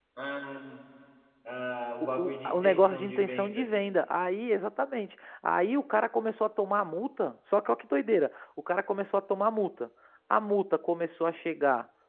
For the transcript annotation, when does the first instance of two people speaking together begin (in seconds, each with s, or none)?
2.2 s